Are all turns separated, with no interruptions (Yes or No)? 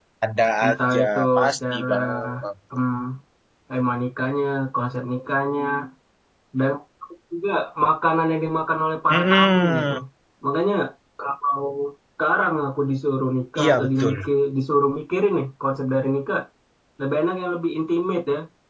No